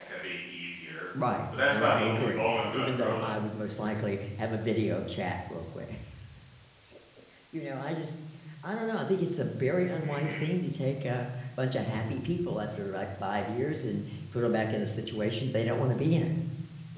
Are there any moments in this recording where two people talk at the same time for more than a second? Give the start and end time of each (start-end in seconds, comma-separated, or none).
1.7-3.3